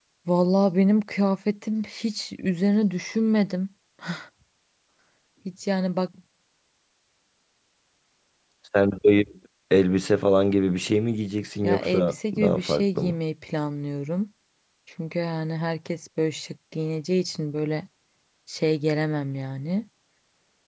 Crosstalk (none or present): present